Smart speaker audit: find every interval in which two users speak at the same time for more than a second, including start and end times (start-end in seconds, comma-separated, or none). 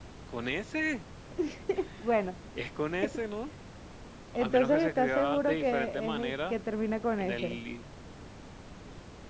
4.4-6.5